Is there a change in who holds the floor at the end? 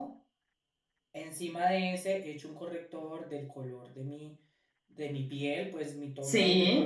No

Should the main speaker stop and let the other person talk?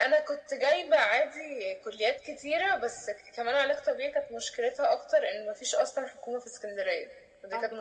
Yes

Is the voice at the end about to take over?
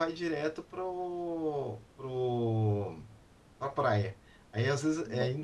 No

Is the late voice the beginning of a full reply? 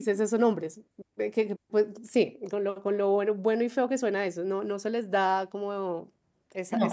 No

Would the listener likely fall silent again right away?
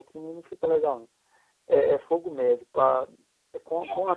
Yes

